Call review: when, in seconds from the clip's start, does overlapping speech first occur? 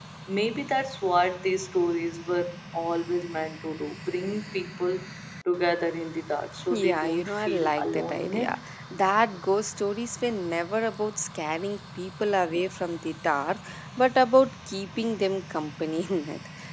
6.5 s

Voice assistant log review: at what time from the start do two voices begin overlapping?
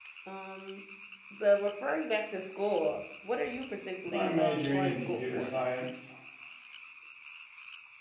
4.1 s

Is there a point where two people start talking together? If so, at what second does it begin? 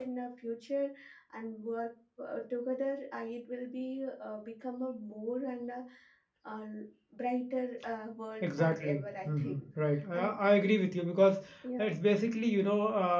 8.4 s

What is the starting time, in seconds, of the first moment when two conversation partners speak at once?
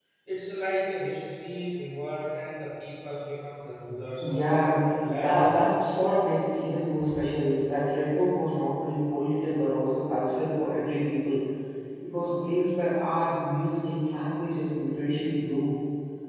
4.2 s

